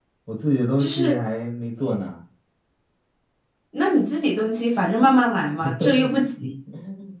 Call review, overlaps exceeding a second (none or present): none